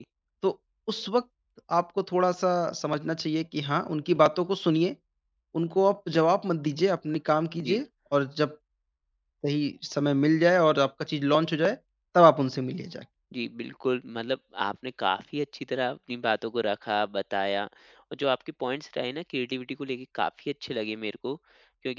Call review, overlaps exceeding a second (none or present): none